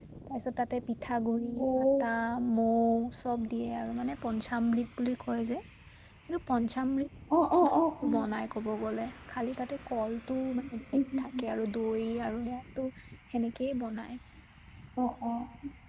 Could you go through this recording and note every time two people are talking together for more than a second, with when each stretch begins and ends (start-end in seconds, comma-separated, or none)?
none